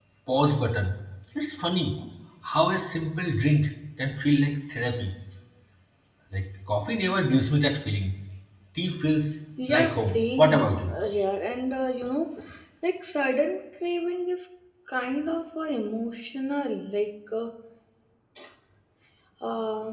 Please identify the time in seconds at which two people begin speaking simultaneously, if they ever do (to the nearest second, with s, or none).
10 s